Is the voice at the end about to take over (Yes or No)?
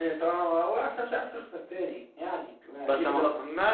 Yes